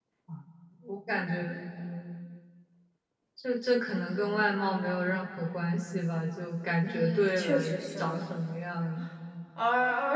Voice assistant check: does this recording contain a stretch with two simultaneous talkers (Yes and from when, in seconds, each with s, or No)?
Yes, from 6.8 s